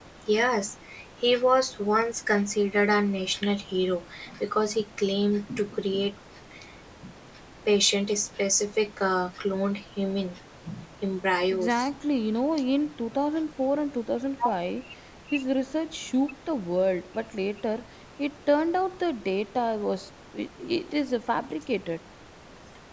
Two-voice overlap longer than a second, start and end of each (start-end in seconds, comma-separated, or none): none